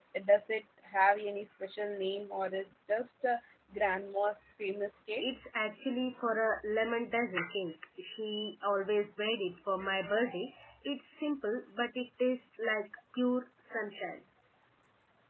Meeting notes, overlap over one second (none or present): none